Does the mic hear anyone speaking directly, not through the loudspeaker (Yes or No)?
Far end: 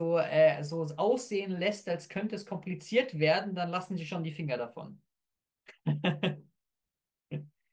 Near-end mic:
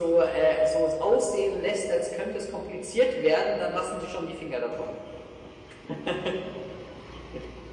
No